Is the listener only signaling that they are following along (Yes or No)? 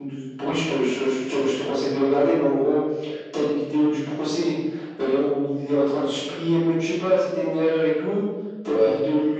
Yes